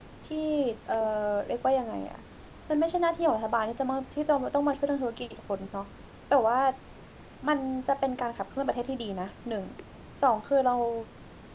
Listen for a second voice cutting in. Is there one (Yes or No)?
No